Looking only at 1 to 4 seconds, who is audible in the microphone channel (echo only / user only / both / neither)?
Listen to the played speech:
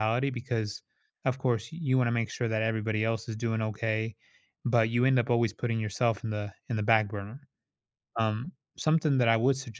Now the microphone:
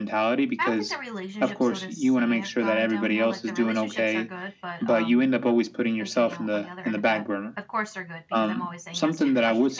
both